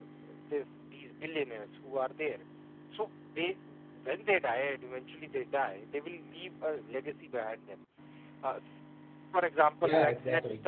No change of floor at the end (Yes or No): Yes